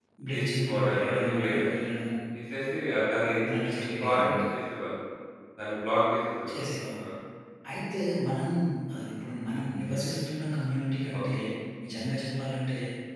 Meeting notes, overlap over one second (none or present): present